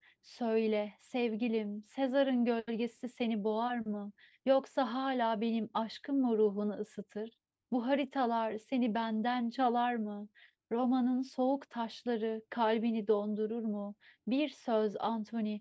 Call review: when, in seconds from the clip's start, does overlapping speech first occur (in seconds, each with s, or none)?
none